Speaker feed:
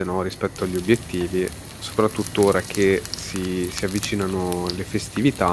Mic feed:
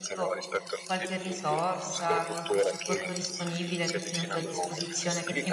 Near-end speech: present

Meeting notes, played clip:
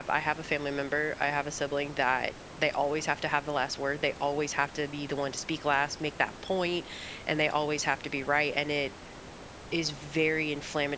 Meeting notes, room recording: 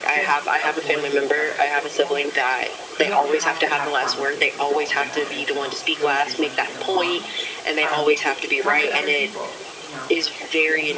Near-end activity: present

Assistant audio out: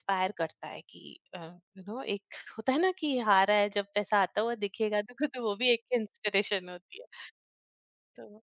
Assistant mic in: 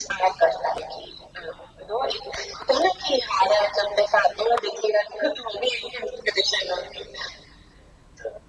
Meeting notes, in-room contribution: none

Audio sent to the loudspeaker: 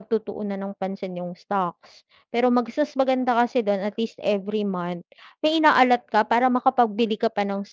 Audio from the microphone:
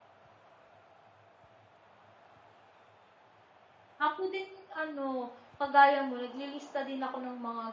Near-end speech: present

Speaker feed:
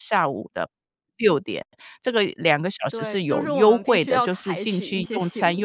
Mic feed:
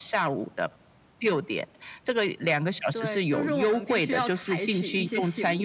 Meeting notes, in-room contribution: none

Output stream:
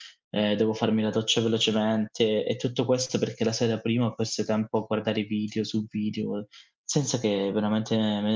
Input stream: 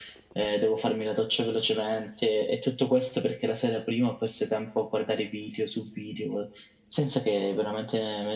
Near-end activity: none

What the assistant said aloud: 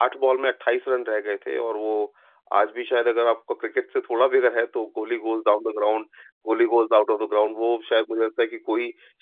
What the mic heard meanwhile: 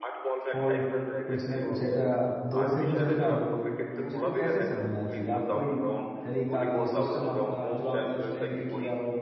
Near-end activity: present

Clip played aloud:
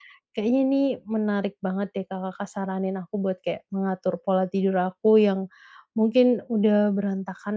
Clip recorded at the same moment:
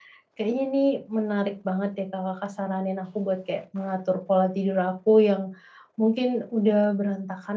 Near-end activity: none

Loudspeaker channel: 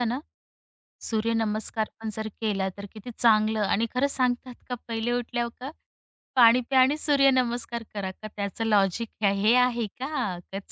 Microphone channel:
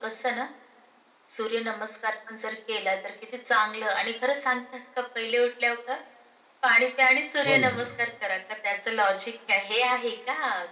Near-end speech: present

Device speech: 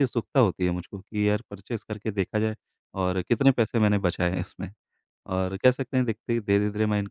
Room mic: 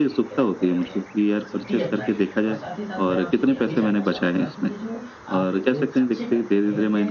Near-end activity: present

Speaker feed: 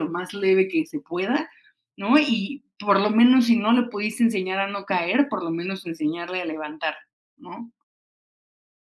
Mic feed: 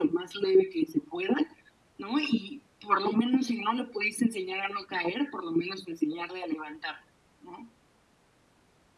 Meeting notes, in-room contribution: none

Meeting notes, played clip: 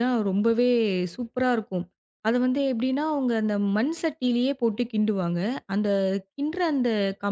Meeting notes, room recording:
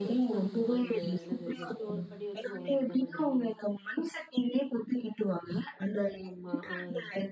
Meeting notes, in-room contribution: present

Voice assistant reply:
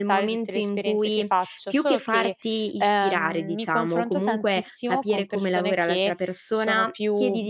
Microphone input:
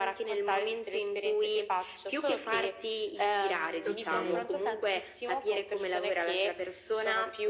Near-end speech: present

